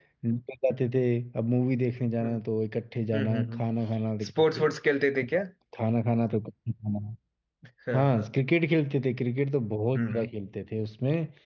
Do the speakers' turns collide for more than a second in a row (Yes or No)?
No